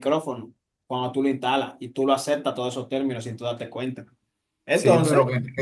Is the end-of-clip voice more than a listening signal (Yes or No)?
Yes